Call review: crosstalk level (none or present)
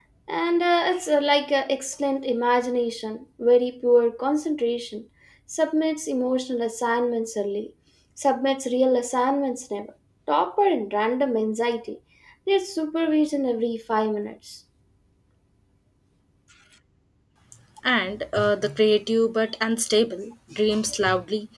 none